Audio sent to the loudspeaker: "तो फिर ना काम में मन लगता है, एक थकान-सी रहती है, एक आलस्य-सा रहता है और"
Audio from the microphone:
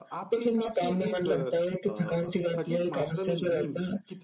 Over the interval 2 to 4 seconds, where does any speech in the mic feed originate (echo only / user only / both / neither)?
both